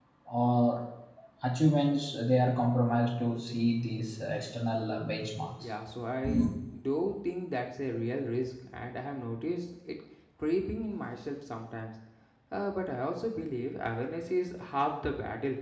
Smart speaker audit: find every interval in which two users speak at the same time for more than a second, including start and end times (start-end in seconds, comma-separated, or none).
none